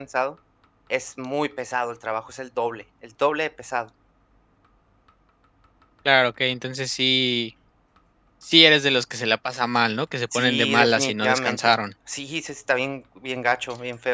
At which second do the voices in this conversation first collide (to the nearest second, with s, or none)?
10 s